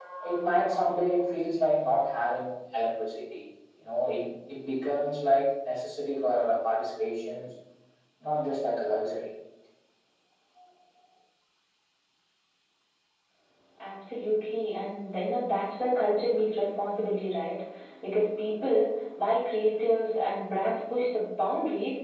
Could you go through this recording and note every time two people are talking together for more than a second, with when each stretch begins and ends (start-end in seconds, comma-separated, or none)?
none